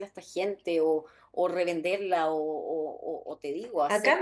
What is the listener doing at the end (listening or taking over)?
taking over